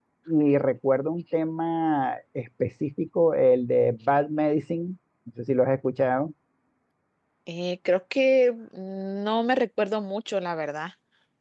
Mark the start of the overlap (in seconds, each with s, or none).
none